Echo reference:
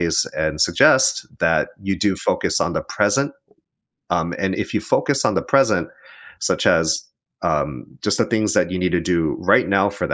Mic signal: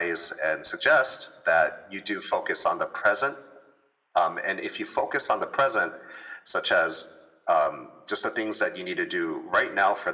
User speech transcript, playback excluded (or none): none